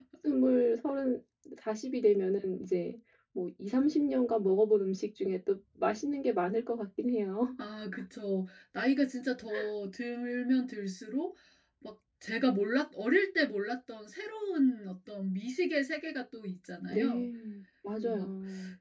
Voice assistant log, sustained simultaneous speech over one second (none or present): none